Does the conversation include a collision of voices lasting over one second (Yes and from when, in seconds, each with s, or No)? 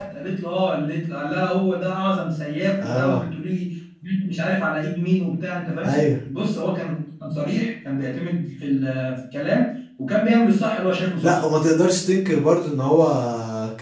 No